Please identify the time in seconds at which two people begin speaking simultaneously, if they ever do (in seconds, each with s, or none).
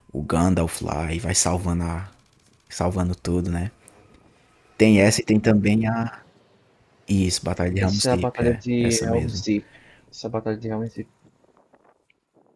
7.8 s